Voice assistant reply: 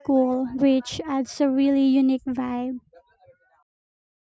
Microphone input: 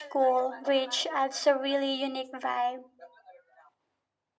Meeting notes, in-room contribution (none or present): none